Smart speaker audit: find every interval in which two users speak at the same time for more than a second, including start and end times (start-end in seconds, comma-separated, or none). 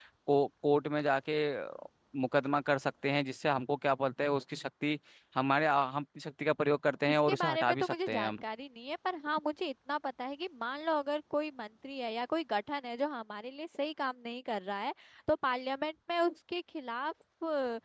7.1-8.4